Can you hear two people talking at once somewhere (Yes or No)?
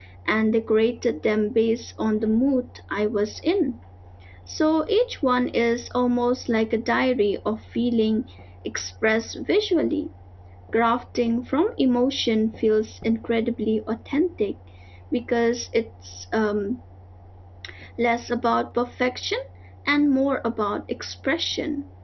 No